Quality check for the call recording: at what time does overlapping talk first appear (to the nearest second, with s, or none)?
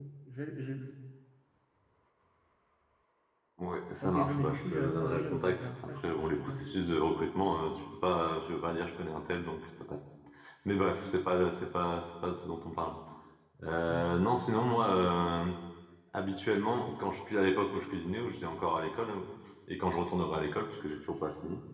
4 s